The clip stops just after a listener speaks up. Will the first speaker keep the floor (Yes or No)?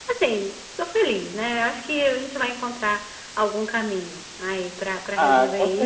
No